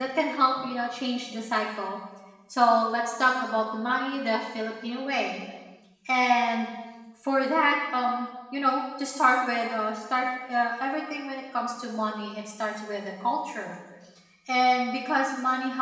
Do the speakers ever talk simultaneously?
No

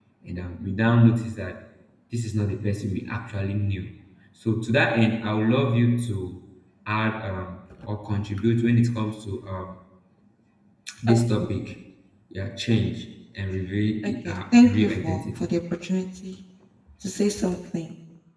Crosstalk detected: Yes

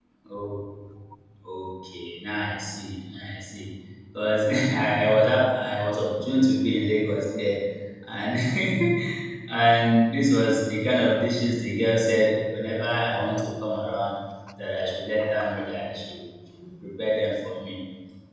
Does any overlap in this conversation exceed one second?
No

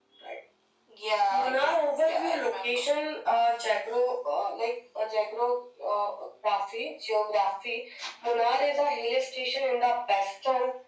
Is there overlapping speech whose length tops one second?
Yes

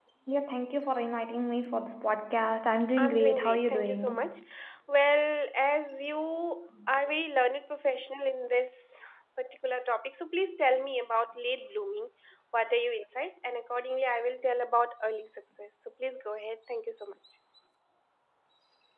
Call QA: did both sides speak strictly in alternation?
No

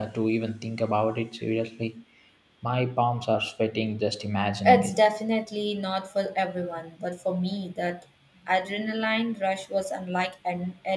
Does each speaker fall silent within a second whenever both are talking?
Yes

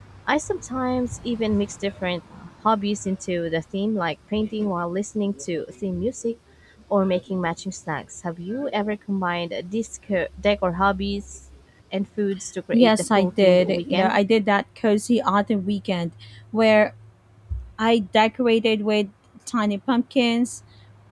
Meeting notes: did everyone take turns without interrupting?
No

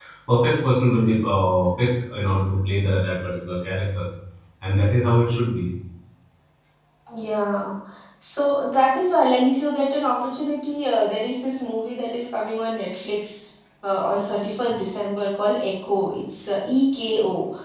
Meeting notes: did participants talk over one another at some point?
No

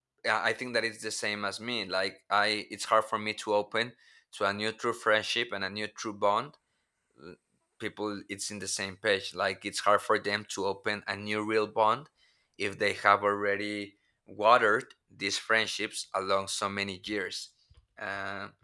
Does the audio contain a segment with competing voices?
No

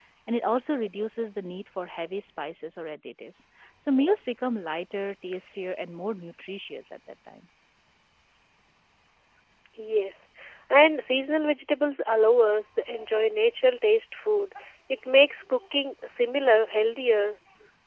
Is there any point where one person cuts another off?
No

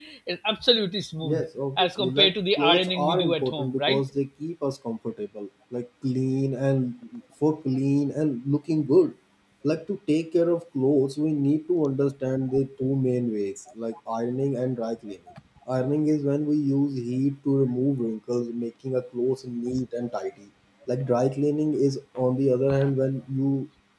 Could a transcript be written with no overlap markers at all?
No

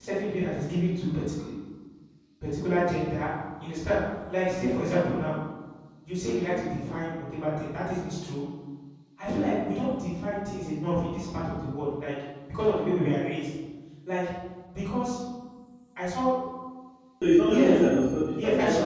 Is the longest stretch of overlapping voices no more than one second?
Yes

